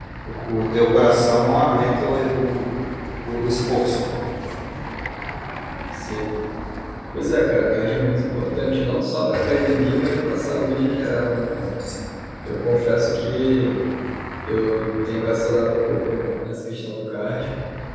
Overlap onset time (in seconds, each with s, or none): none